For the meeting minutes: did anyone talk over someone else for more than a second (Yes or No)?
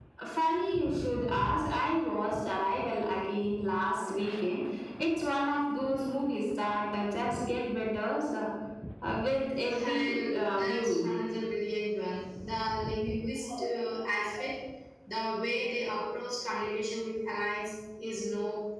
Yes